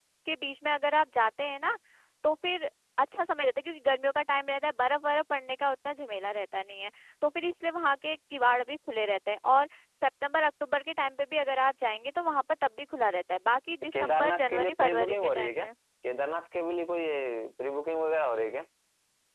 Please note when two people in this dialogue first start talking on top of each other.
13.9 s

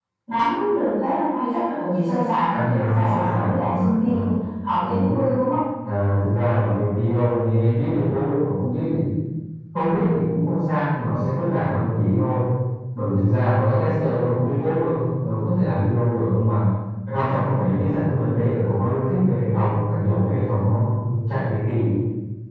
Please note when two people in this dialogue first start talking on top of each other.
2.5 s

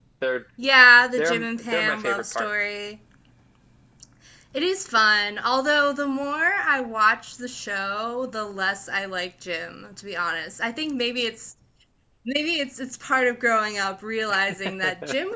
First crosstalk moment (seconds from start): 1.2 s

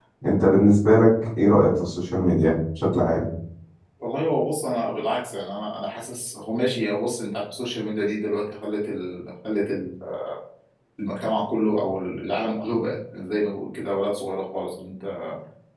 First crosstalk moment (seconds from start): none

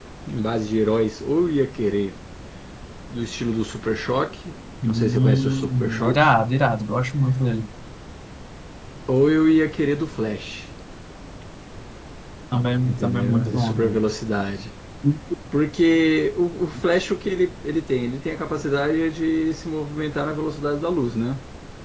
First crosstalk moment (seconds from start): 4.8 s

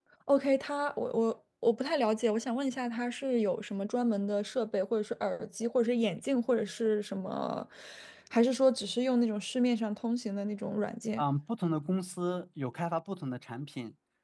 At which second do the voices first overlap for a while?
none

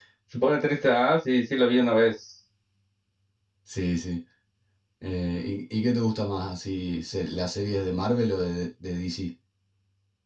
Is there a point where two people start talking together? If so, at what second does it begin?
none

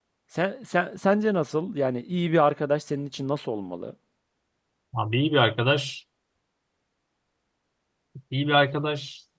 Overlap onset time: none

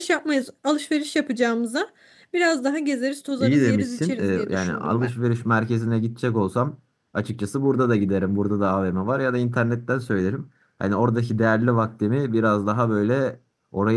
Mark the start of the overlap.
3.4 s

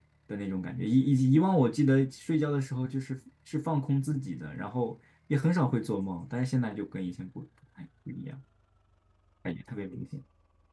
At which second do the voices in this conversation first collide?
none

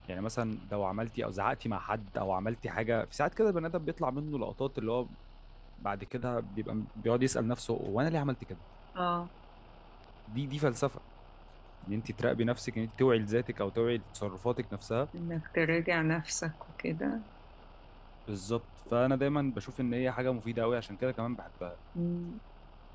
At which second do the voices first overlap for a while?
none

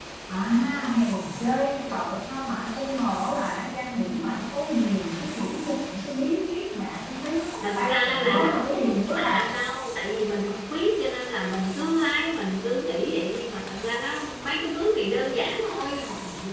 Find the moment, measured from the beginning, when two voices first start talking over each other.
7.6 s

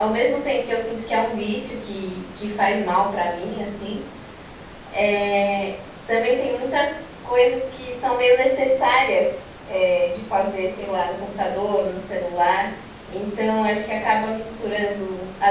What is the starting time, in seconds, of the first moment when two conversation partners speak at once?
none

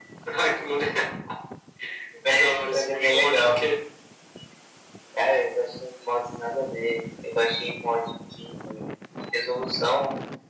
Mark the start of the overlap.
2.3 s

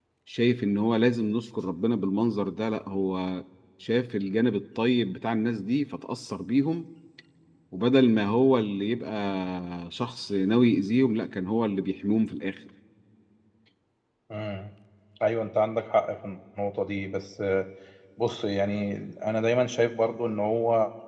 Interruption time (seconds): none

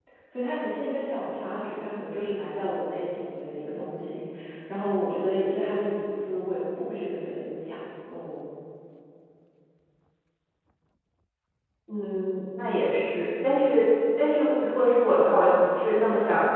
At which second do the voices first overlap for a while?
none

